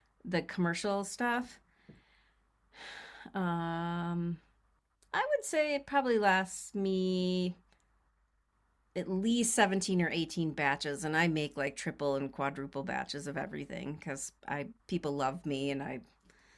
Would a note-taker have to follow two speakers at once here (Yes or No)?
No